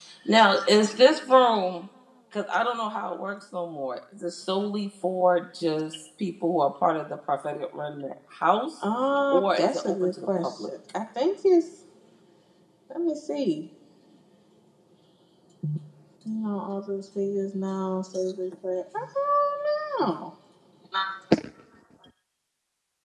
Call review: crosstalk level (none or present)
present